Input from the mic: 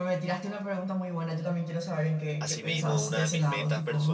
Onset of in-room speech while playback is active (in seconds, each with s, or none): 2.4 s